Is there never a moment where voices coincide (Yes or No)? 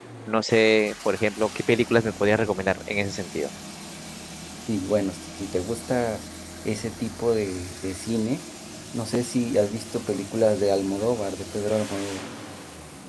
Yes